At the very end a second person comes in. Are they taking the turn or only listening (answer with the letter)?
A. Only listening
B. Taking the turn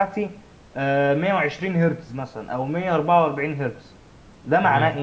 B